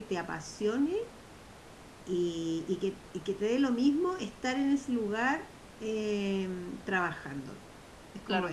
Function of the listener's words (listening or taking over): taking over